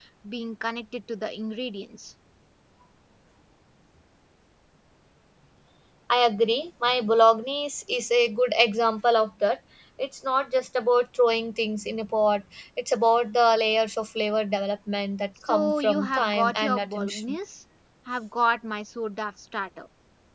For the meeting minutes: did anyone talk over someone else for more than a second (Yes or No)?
Yes